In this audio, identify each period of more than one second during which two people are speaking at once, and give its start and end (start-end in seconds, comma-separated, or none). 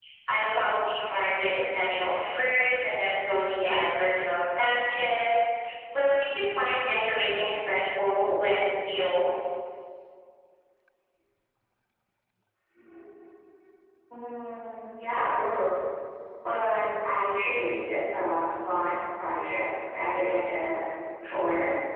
none